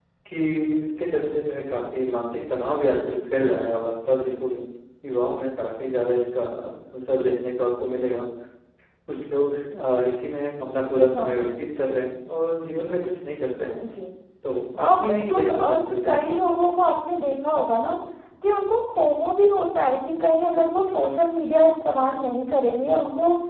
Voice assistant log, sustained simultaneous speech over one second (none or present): present